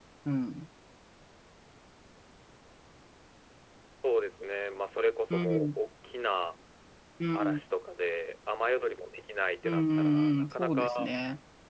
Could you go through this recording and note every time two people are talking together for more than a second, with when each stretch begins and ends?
9.6-10.9

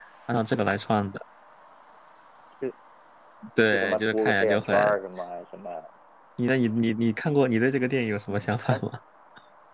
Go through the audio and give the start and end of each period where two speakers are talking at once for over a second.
3.7-4.9

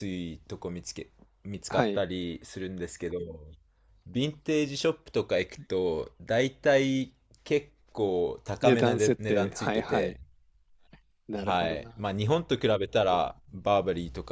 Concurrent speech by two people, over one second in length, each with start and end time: 8.6-10.1

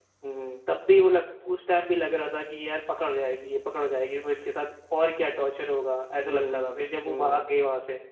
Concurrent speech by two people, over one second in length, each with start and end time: 6.2-7.5

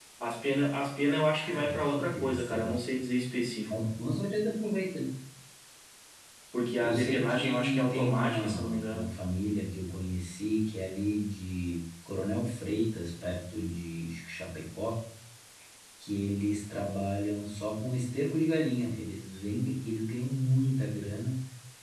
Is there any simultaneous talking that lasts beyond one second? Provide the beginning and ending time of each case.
1.3-2.7, 6.8-9.0

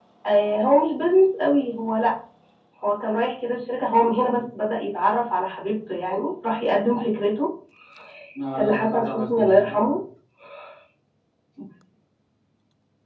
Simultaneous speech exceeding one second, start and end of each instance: 8.6-10.0

